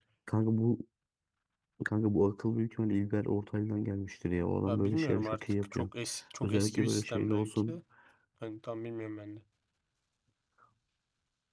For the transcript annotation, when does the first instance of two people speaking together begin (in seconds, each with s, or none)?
4.7 s